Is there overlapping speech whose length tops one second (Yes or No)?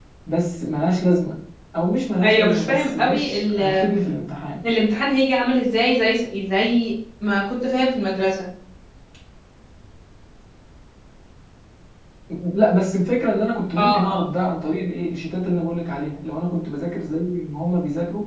Yes